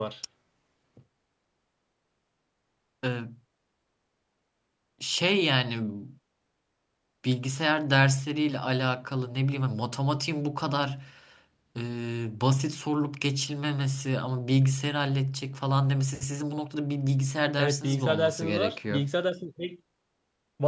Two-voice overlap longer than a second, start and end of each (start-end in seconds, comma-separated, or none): 17.6-19.1